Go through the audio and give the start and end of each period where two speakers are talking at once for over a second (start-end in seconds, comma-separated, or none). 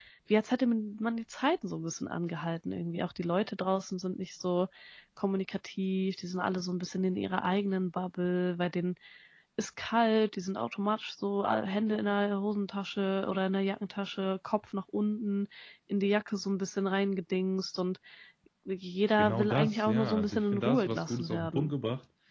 19.2-21.7